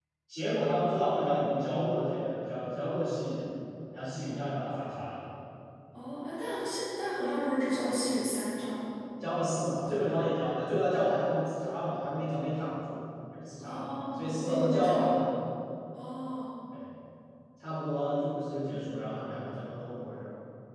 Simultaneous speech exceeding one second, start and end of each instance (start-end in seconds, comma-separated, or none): 13.6-14.9